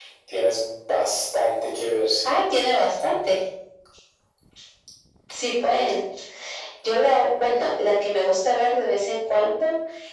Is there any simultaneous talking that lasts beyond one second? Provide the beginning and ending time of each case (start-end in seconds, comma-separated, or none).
none